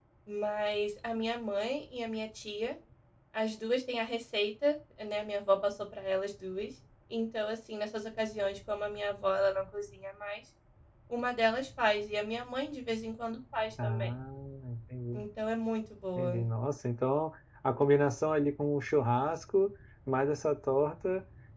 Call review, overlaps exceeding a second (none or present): none